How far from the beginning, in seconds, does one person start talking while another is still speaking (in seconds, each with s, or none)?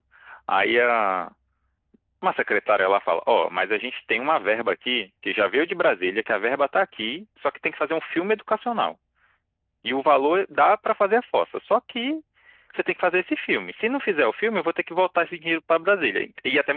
none